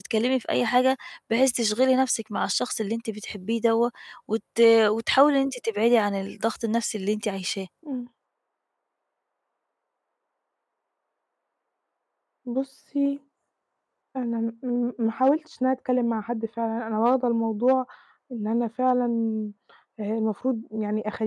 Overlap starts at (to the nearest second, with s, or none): none